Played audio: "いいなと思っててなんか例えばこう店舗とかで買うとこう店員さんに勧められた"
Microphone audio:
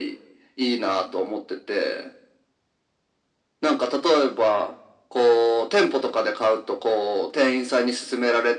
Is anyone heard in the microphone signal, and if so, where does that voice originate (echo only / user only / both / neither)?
echo only